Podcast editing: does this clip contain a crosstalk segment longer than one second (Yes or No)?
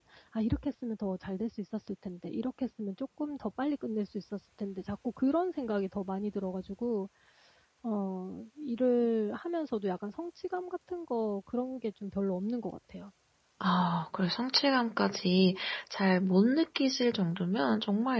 No